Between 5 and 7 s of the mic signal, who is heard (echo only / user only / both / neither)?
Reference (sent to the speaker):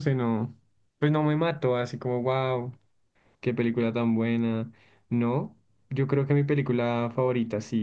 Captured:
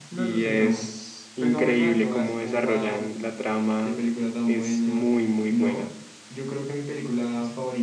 both